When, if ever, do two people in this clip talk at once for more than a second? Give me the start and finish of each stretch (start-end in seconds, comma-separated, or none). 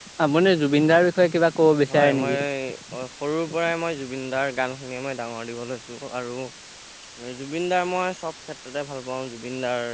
none